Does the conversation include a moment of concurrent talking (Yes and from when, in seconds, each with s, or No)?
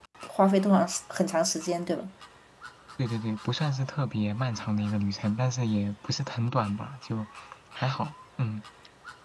No